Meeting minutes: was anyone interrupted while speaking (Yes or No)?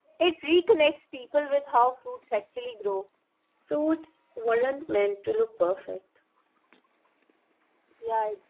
No